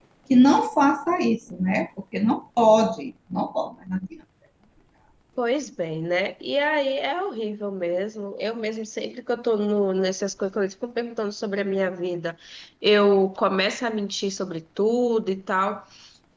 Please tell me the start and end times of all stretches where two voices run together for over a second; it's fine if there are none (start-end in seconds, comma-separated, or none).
none